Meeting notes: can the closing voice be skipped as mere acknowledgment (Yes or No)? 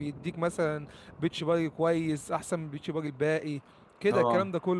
Yes